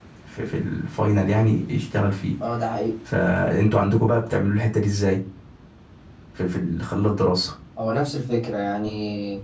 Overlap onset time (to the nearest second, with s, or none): none